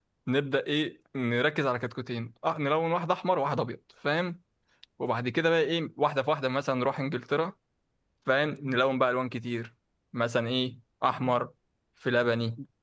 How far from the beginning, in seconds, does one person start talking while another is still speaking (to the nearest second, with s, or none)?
none